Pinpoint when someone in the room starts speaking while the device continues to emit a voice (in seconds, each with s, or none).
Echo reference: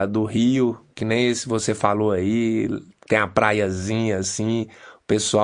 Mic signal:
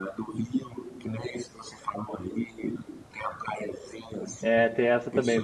4.4 s